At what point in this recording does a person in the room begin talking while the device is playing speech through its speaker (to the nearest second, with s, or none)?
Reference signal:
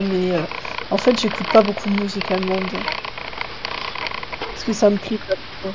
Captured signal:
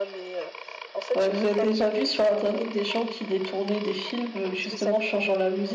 1 s